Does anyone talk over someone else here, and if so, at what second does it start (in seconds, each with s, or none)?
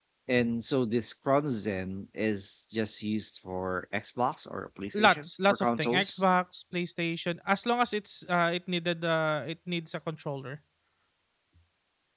4.9 s